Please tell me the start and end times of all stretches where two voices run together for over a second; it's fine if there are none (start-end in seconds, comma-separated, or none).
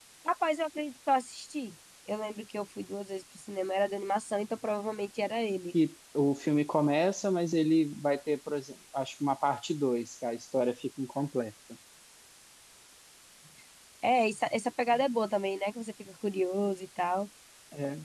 none